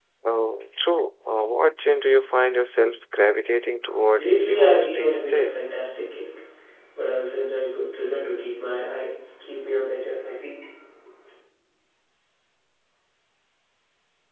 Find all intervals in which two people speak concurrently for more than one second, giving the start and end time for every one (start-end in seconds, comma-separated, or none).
4.2-5.7